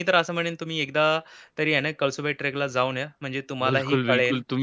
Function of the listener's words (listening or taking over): taking over